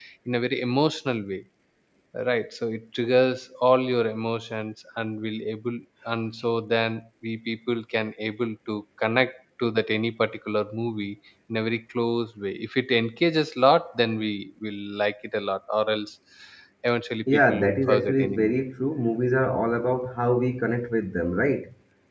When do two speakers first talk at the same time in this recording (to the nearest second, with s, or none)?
17 s